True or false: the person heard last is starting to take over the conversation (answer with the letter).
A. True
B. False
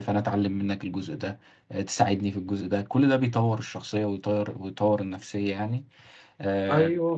A